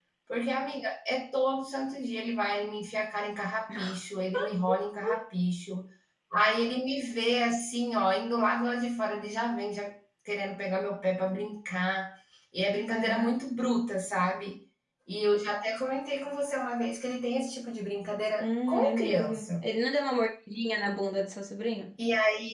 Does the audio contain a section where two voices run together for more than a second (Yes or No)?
Yes